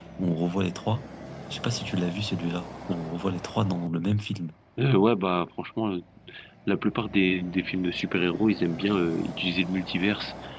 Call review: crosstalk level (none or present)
none